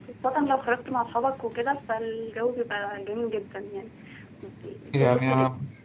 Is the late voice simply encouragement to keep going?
No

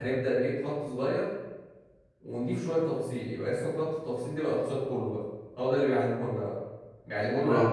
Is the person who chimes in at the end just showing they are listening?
Yes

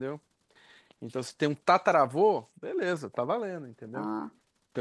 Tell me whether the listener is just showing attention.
Yes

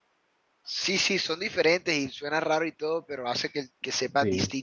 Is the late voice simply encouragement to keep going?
No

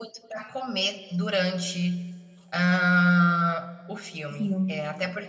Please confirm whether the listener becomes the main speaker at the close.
No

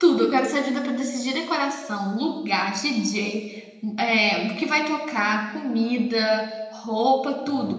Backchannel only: Yes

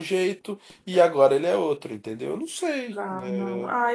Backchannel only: No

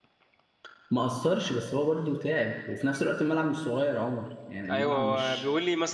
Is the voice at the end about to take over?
Yes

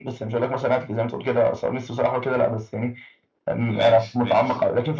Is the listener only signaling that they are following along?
Yes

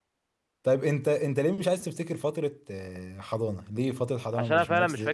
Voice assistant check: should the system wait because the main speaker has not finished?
No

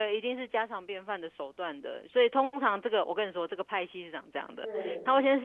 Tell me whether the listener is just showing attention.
Yes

